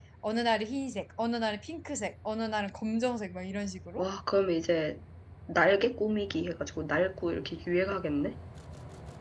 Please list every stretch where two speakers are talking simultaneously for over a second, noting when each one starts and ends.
none

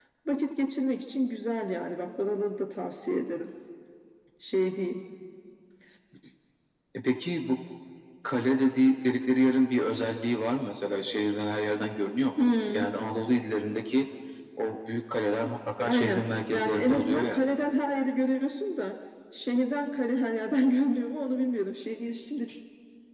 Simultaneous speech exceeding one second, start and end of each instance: 15.8-17.4

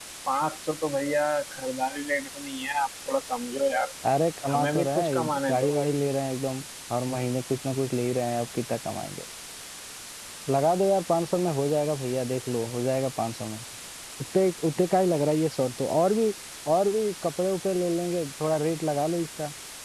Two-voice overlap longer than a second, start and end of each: 4.5-5.7

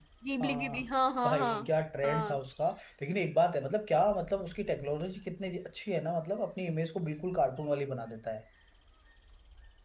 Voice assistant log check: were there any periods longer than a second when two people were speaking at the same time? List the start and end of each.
none

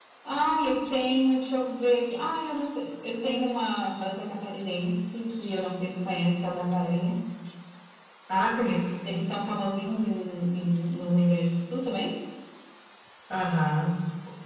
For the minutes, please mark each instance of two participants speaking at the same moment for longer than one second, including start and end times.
none

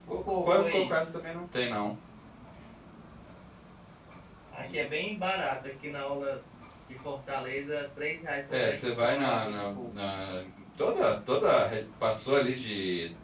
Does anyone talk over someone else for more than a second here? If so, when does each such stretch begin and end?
8.5-9.9

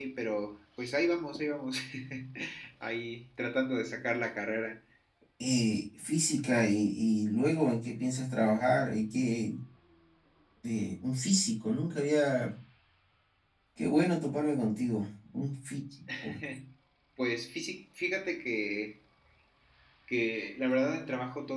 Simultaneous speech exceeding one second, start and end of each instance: none

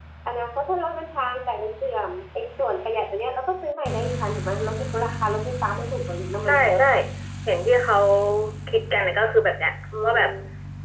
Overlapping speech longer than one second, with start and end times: none

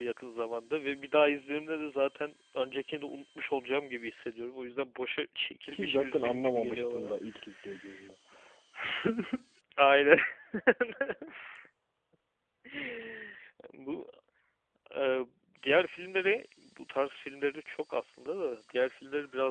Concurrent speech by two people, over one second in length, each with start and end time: 5.7-7.1

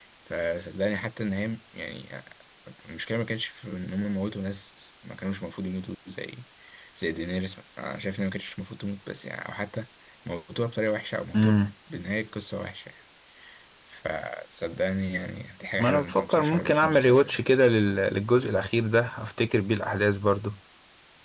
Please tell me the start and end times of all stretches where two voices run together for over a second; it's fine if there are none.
15.8-17.4

